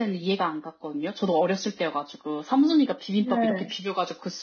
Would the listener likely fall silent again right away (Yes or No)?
Yes